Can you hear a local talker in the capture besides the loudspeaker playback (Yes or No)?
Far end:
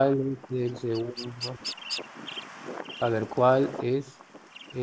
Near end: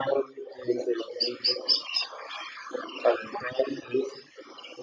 No